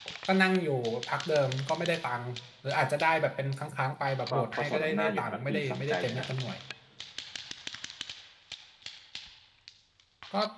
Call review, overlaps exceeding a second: present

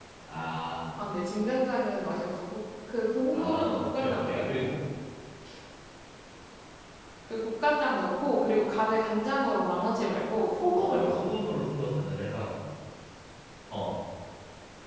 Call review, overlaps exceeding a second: present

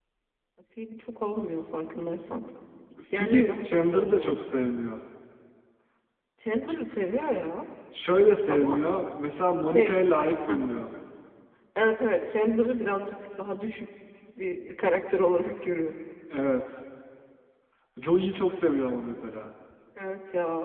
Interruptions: present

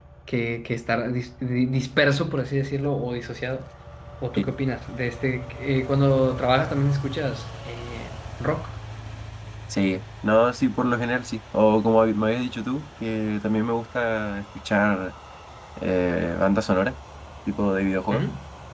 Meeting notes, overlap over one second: none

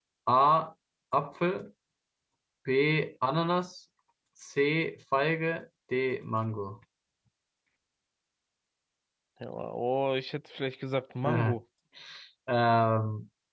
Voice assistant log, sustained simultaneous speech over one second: none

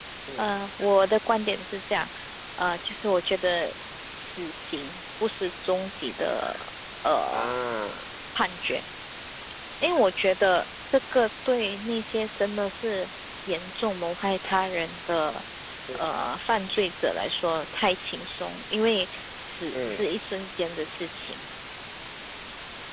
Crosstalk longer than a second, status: none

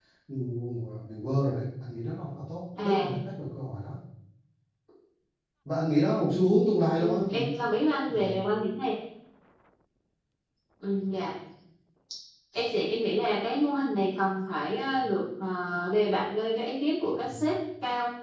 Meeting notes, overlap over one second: none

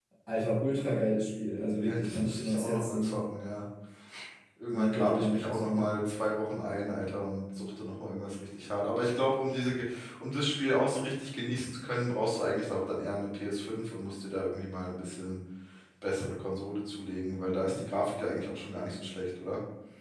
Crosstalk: present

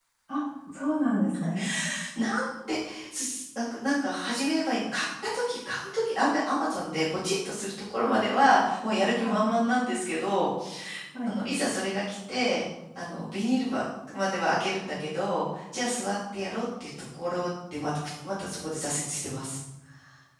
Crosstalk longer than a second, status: none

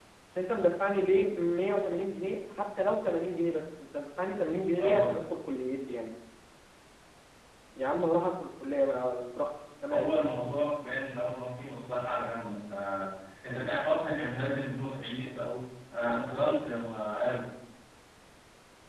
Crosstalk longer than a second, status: none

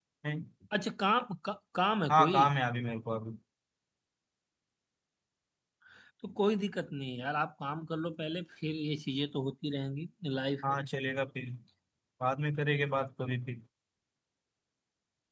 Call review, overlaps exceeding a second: none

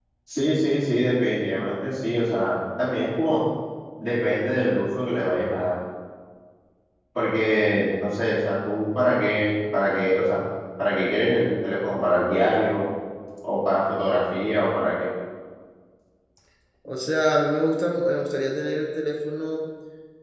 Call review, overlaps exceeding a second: none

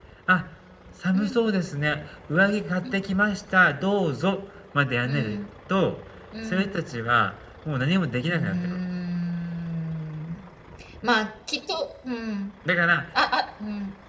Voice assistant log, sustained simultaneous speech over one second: none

